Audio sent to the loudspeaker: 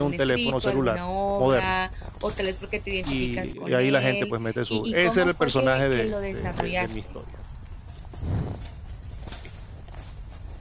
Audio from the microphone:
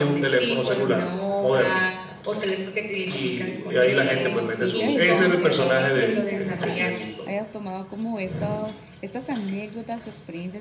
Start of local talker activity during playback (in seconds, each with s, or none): 4.0 s